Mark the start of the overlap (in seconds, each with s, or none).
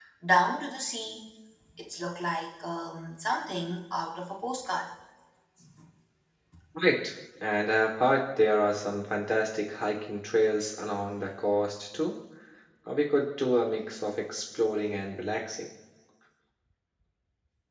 none